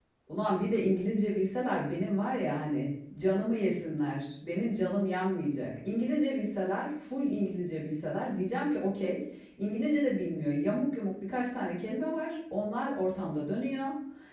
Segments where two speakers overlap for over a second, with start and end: none

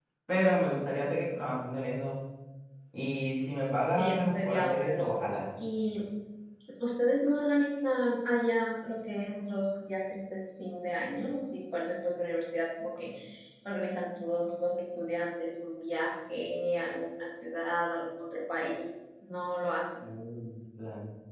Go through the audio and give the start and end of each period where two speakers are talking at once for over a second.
4.0-5.4

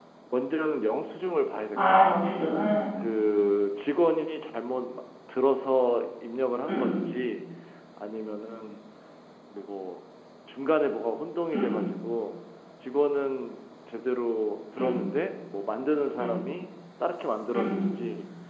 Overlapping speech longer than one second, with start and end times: none

